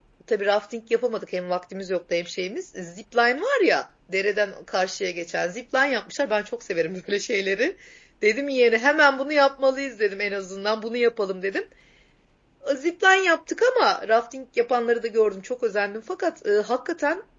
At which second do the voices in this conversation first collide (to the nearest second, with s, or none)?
none